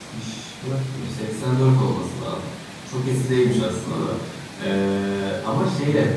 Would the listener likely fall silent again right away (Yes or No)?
Yes